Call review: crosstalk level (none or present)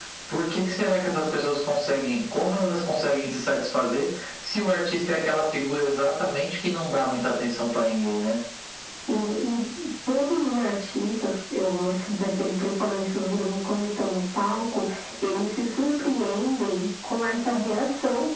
none